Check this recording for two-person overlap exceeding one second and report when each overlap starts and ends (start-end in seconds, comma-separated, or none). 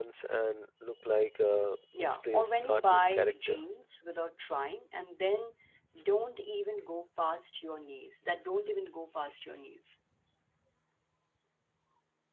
2.0-3.6